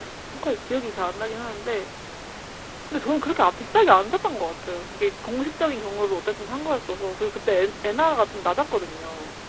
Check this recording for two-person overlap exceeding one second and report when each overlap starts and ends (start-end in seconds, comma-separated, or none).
none